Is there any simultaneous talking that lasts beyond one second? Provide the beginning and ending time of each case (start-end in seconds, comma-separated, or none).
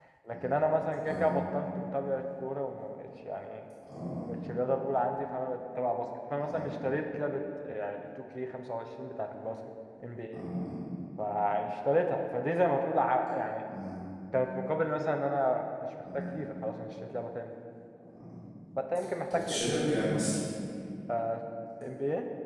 none